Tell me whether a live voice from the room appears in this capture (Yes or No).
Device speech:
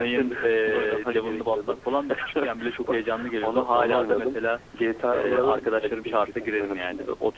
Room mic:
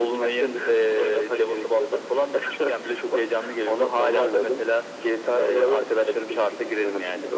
No